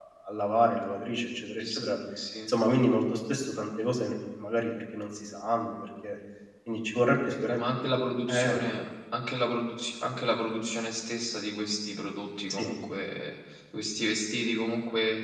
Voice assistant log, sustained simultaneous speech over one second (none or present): none